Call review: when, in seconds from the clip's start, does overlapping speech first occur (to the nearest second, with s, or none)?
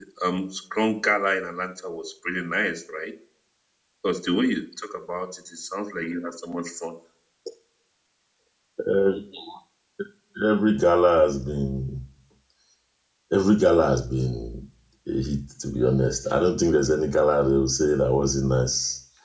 none